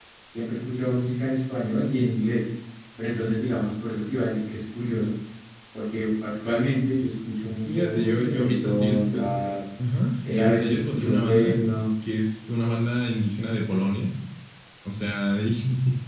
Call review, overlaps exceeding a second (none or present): present